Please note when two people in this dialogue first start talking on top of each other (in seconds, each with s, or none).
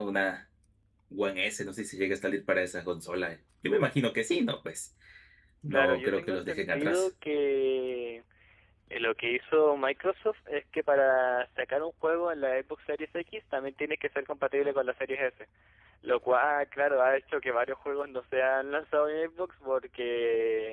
5.7 s